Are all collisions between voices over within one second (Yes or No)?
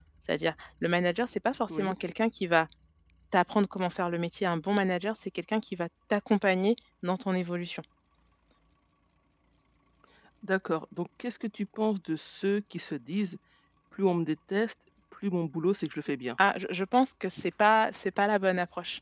Yes